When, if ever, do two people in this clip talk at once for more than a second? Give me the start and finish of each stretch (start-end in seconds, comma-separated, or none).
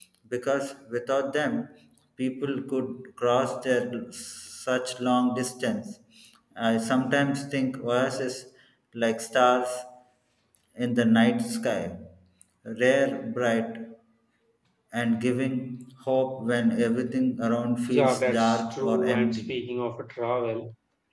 17.9-19.5